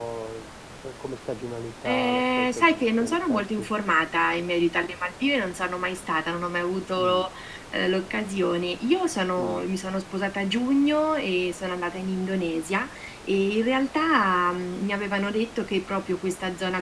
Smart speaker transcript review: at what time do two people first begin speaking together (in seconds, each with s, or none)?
1.9 s